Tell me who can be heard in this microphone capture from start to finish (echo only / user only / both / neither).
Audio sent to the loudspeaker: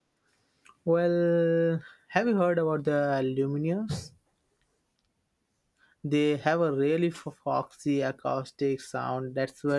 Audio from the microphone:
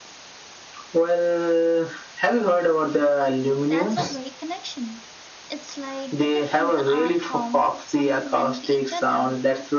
both